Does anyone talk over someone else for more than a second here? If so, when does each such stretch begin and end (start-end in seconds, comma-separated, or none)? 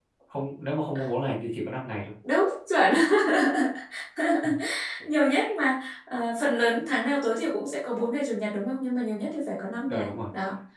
none